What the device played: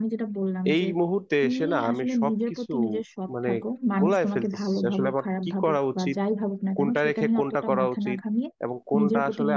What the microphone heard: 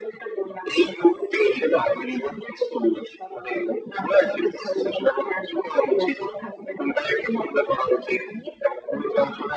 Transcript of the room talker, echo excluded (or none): none